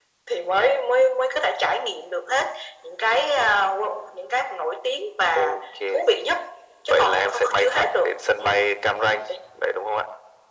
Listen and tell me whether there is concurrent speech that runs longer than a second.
Yes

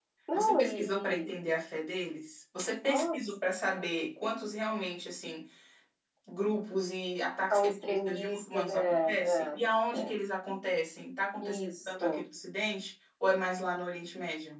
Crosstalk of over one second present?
Yes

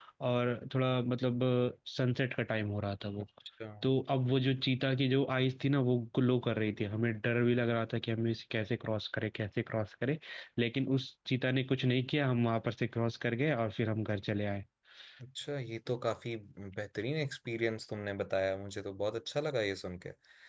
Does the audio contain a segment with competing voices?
No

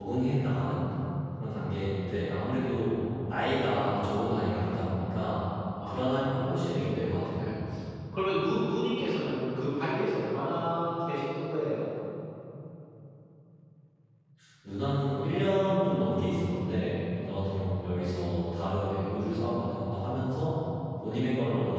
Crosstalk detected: Yes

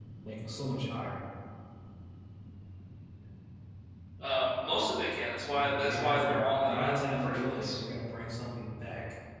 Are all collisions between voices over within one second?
No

